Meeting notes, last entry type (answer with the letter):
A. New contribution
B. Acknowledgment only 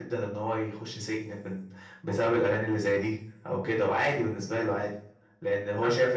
B